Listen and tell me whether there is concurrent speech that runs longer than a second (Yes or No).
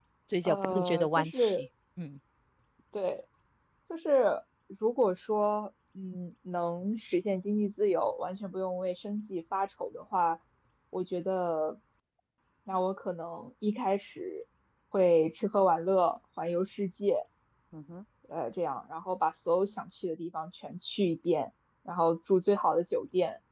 Yes